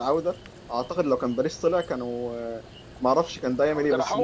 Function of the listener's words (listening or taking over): listening